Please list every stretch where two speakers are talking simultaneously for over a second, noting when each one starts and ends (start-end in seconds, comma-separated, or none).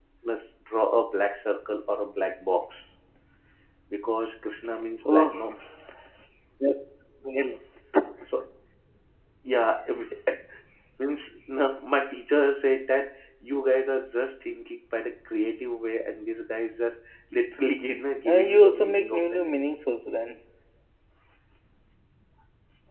18.2-19.6